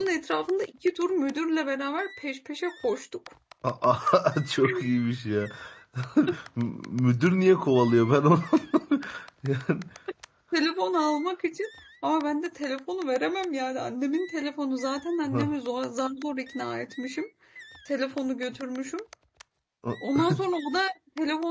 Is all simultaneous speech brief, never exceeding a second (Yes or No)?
Yes